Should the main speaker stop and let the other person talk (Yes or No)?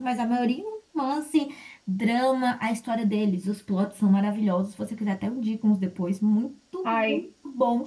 No